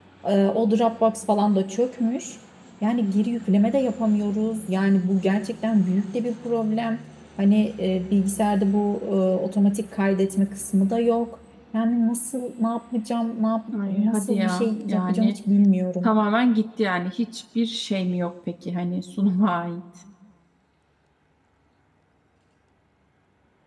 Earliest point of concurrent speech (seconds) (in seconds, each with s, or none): 13.7 s